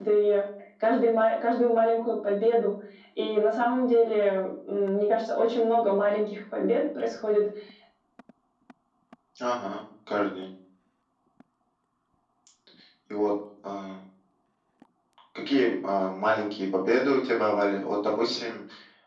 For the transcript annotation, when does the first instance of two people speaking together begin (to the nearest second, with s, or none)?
none